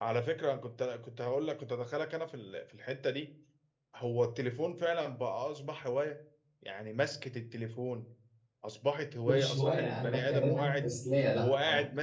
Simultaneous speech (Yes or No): Yes